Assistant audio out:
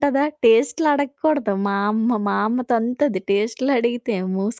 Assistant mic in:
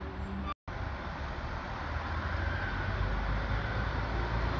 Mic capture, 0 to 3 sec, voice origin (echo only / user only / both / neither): neither